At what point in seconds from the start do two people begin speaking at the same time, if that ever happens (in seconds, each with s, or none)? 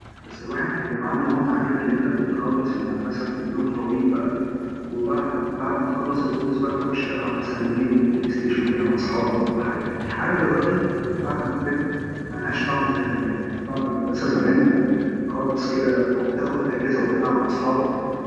none